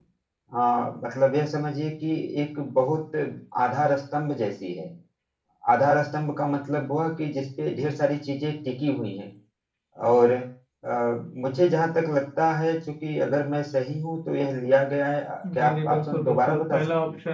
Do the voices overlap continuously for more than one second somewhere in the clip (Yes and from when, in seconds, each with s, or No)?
Yes, from 15.4 s